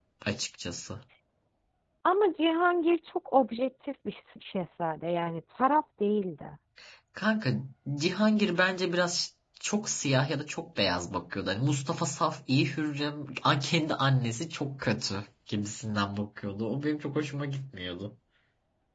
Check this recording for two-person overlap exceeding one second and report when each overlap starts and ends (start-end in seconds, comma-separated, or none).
none